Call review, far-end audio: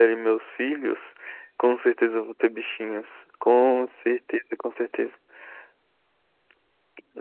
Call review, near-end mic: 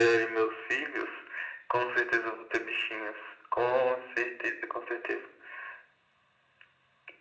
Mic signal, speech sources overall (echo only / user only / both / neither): echo only